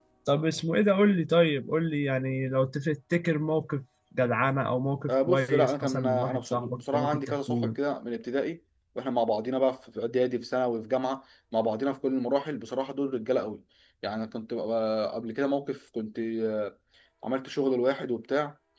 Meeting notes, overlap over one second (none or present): present